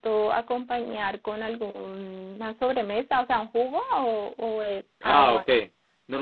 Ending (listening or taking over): taking over